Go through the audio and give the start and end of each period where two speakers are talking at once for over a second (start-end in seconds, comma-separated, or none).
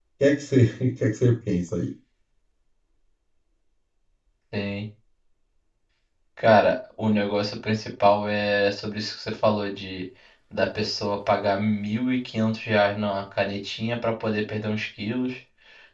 none